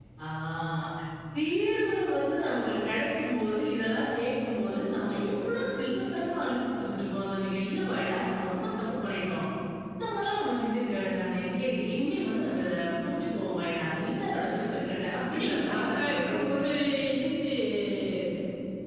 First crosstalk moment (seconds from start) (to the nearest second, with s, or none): 15 s